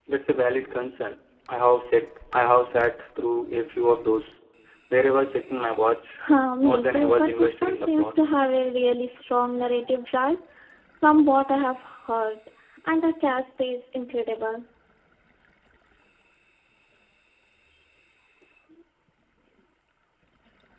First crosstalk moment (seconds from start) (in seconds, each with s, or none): 6.6 s